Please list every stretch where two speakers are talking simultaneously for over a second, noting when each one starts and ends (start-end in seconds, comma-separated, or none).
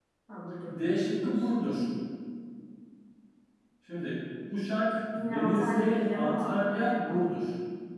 5.1-7.2